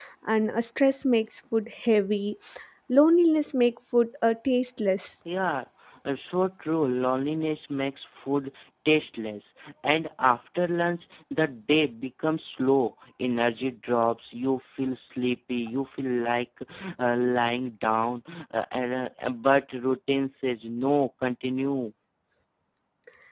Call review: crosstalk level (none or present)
none